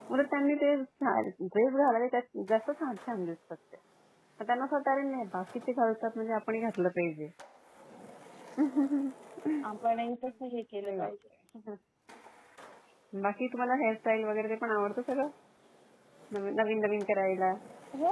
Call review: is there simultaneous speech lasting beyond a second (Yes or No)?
No